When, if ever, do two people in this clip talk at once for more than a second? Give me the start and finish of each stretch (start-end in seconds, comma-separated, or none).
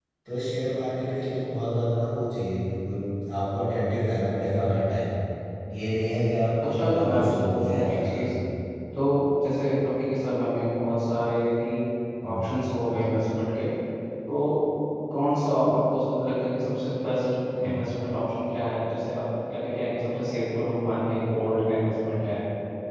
6.6-8.3